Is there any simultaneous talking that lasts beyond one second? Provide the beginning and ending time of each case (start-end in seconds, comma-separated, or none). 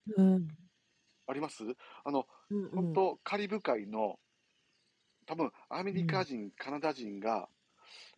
none